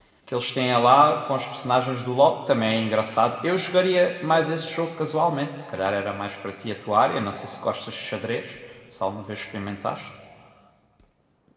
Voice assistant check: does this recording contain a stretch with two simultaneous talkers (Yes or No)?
No